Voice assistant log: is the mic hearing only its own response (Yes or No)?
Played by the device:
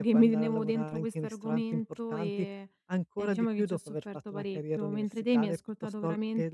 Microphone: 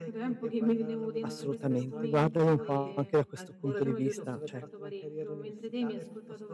No